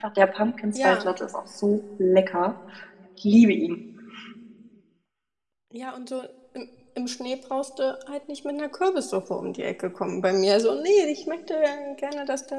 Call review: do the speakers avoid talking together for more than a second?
Yes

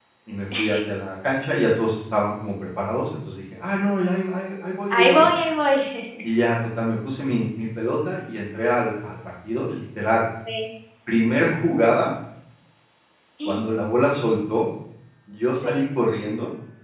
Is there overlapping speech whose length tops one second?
No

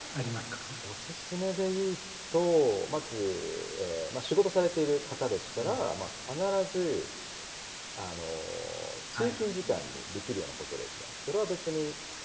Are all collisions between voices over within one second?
Yes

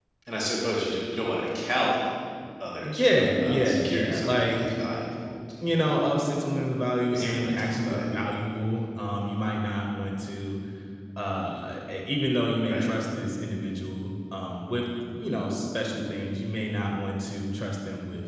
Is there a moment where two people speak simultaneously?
Yes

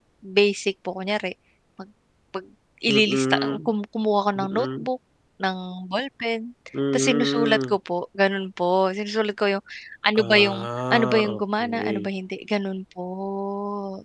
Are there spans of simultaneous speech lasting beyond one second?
Yes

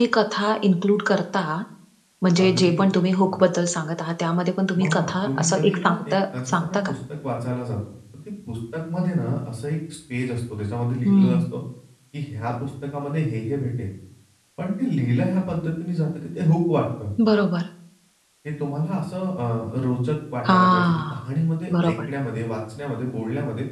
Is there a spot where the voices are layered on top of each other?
Yes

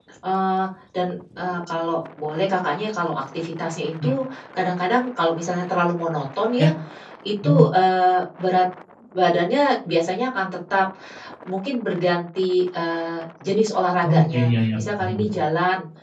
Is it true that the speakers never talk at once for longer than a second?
No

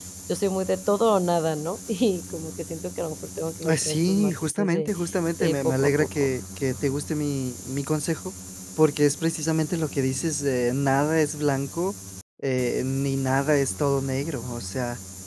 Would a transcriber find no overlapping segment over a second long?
No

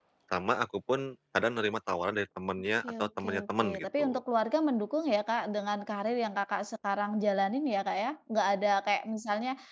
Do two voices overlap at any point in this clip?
Yes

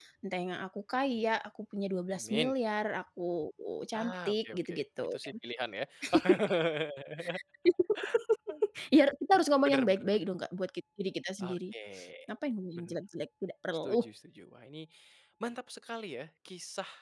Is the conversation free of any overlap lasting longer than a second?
No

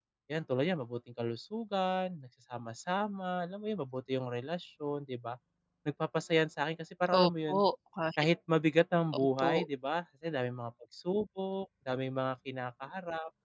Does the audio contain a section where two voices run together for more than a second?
No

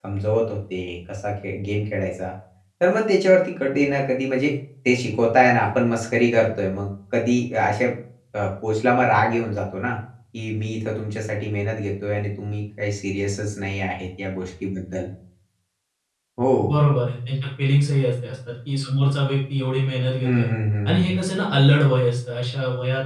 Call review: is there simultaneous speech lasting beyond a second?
No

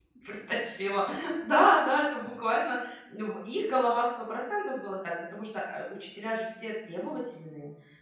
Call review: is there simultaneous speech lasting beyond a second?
No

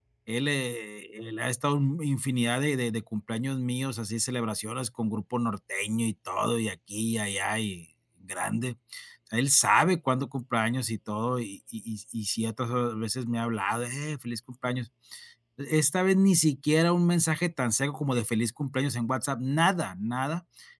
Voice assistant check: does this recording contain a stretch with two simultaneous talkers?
No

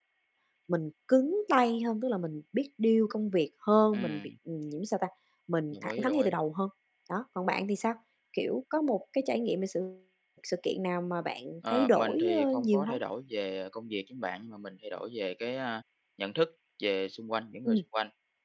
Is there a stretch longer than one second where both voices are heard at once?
Yes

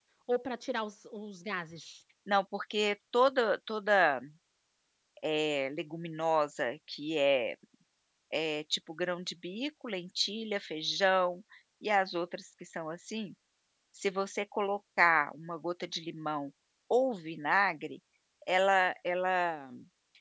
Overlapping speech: No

